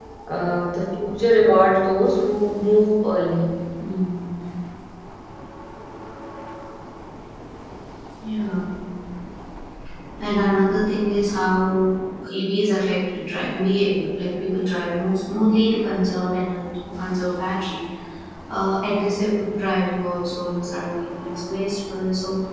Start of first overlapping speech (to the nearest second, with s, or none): none